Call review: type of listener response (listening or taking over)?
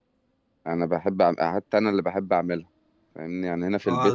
taking over